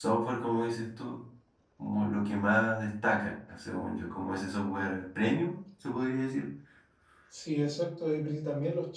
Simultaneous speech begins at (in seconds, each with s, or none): none